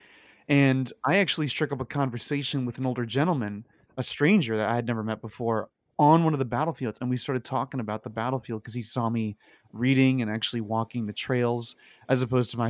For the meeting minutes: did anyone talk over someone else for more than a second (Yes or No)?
No